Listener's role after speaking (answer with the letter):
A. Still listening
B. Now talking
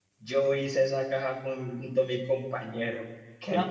B